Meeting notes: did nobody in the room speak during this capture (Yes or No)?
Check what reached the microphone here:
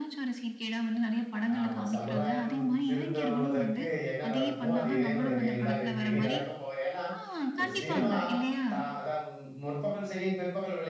No